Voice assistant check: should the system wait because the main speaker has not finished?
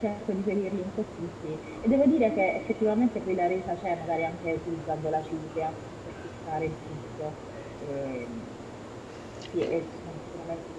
Yes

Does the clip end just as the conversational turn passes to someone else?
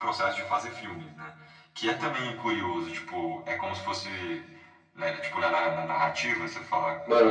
Yes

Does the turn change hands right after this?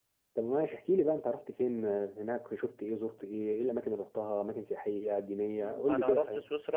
Yes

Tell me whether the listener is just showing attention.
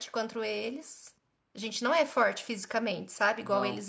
Yes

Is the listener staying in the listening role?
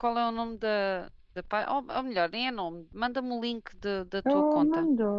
No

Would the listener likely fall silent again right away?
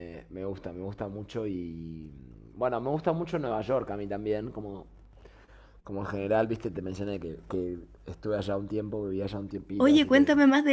No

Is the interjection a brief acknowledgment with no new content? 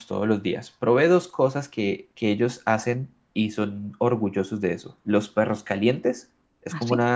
Yes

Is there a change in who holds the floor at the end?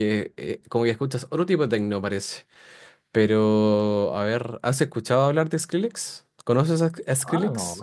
Yes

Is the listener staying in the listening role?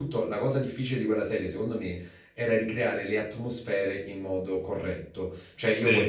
Yes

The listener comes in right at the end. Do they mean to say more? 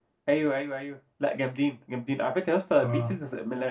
No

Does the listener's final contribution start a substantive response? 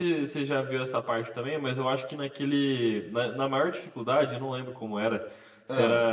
No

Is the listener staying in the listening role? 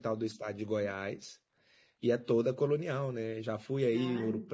Yes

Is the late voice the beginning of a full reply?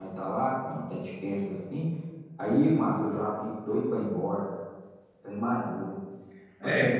Yes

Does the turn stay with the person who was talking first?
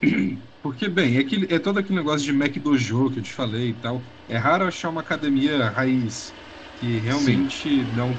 Yes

